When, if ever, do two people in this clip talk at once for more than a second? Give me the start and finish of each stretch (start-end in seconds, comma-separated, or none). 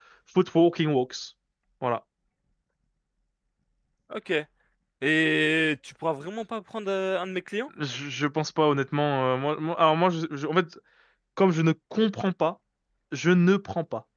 none